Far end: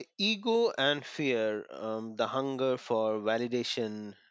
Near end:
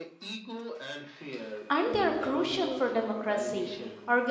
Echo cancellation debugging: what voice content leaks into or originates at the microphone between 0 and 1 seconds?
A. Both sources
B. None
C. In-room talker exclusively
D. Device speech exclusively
D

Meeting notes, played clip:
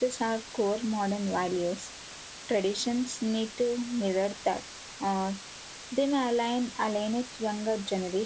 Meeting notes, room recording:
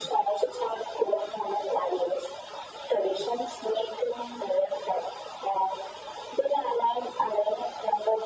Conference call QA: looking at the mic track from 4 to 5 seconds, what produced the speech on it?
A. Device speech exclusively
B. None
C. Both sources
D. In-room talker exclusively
A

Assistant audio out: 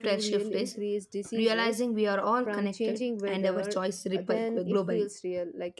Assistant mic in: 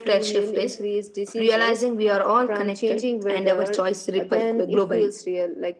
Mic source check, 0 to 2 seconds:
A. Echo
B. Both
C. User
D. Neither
A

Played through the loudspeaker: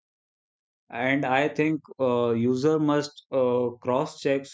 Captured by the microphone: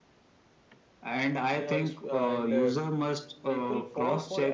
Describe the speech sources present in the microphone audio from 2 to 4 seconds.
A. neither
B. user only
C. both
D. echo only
C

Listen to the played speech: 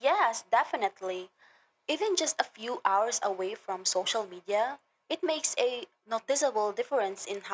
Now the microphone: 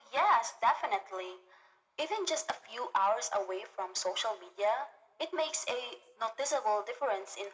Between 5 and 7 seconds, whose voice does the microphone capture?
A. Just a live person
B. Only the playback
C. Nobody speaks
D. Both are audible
B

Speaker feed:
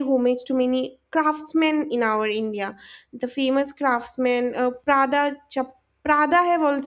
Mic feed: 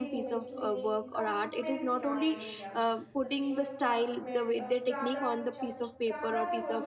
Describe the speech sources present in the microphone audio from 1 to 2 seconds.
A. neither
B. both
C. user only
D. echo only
B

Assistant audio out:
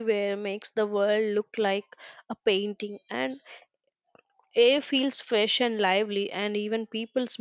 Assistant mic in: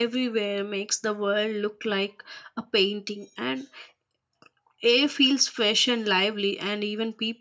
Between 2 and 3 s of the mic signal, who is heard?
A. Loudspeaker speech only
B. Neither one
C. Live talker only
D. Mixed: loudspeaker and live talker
A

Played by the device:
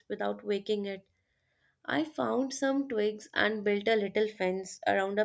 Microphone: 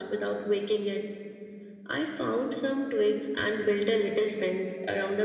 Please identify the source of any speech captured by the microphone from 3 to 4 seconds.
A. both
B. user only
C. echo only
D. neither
C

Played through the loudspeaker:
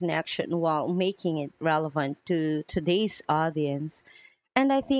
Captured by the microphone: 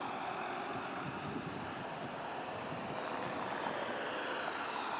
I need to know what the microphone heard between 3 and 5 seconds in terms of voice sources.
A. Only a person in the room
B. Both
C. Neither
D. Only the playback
C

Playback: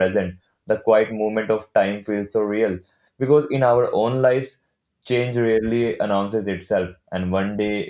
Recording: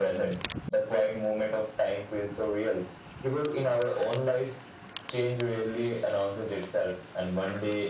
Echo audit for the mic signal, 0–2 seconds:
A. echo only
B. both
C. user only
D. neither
A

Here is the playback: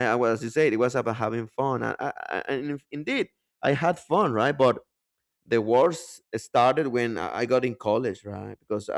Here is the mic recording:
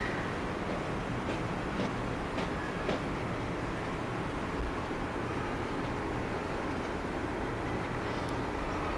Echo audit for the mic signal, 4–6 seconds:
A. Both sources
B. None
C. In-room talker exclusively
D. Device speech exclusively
B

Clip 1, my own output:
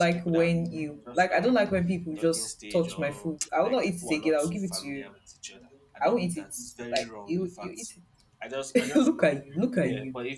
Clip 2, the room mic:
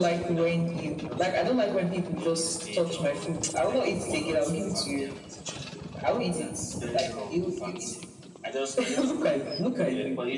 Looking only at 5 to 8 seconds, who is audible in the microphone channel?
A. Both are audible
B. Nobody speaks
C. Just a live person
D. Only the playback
D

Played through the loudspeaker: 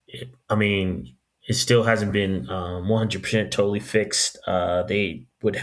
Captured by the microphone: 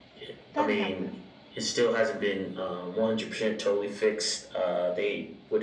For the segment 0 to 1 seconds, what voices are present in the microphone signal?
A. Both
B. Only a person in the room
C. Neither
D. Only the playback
A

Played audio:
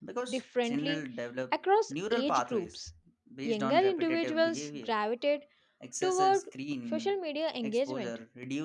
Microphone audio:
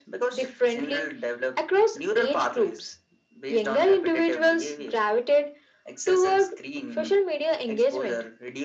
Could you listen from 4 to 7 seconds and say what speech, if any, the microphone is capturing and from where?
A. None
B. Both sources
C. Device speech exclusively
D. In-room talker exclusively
C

